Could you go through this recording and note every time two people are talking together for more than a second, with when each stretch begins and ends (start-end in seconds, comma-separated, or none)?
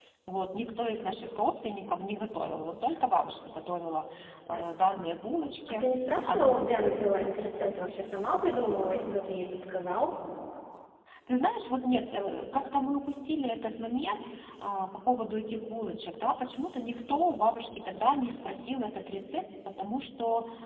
none